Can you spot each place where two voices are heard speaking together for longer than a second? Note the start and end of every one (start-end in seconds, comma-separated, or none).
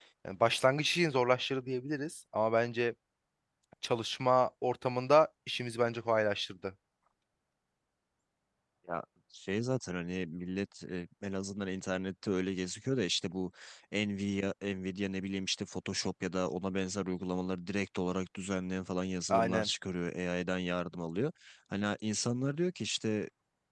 none